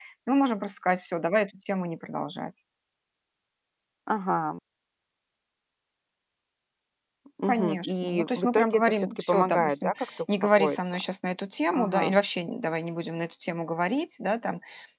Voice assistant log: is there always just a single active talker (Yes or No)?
No